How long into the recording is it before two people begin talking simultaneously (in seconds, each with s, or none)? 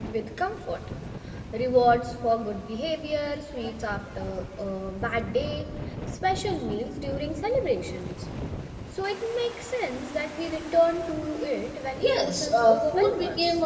12.0 s